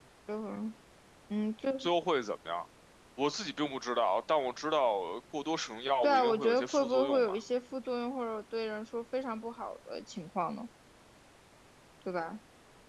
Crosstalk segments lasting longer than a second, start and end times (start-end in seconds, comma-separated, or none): 6.0-7.4